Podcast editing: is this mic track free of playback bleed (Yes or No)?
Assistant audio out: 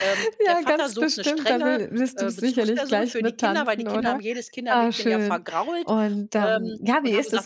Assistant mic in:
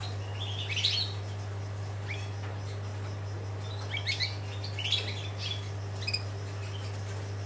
Yes